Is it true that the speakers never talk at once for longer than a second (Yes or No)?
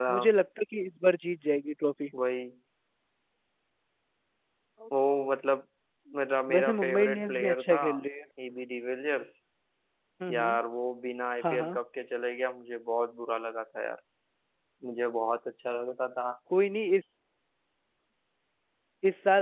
No